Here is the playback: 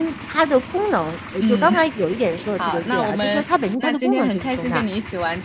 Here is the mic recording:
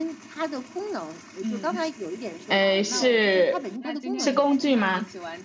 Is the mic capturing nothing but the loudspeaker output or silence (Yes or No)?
No